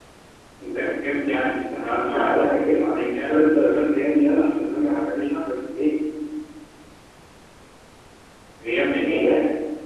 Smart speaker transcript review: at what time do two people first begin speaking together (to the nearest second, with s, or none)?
2 s